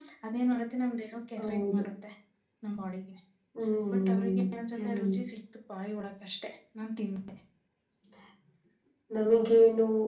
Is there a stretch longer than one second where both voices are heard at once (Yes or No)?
No